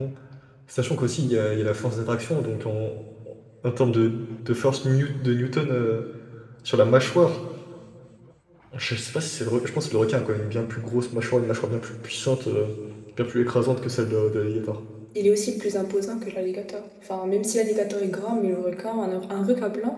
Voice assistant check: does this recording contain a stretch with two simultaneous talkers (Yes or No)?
No